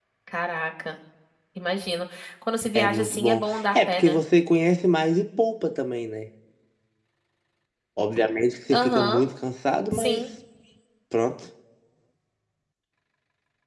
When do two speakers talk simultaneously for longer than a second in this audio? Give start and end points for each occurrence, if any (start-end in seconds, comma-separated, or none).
2.8-4.2